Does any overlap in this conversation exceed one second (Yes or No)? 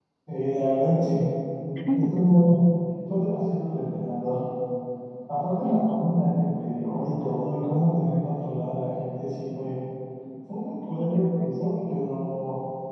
Yes